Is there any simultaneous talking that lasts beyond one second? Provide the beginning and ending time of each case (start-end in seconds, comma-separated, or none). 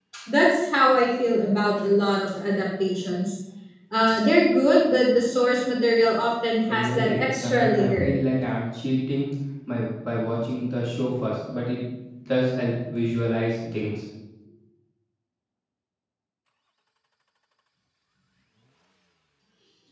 6.7-8.1